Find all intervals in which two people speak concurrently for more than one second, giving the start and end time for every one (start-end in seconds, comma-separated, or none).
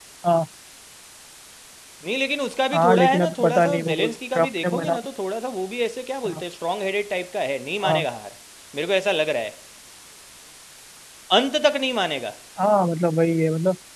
2.7-5.0